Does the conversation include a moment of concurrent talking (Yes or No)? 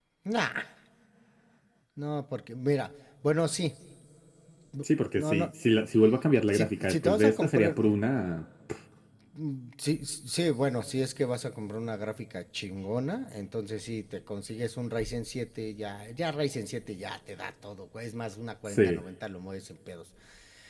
Yes